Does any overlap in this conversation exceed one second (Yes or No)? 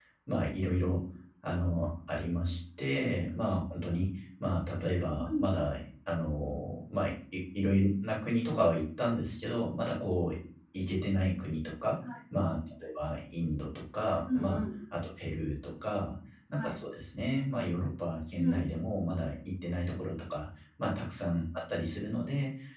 No